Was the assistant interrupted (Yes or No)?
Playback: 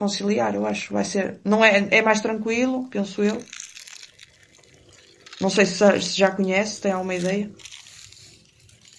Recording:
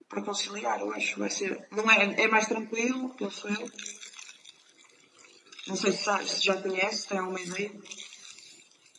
No